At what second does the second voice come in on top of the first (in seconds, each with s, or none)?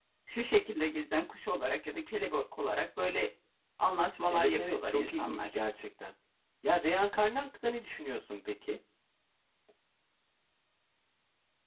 4.3 s